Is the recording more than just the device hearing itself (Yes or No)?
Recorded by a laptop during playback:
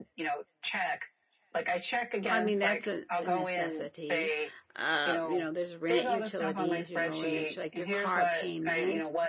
Yes